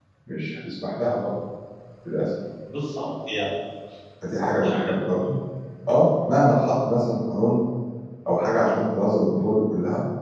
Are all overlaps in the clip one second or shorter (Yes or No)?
Yes